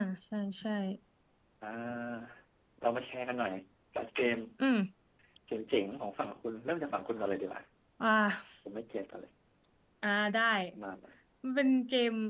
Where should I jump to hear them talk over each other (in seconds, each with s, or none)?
none